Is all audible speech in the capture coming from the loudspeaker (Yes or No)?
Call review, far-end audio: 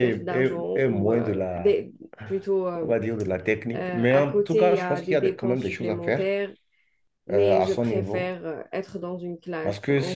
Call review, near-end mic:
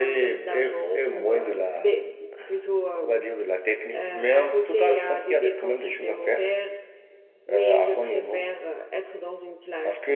Yes